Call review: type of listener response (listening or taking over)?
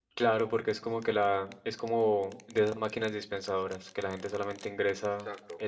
listening